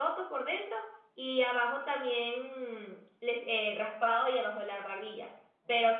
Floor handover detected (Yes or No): No